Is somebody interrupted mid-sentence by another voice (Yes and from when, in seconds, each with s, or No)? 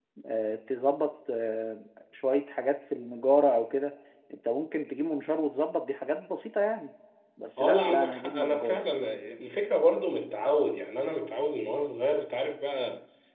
Yes, from 7.6 s